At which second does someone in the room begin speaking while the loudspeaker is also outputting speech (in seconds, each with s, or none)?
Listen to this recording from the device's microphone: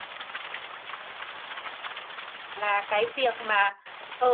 2.6 s